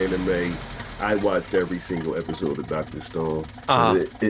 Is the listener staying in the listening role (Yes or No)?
Yes